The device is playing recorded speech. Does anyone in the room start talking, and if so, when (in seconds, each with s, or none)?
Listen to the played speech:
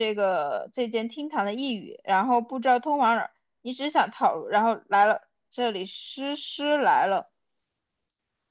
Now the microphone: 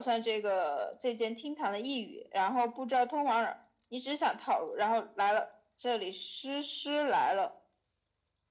none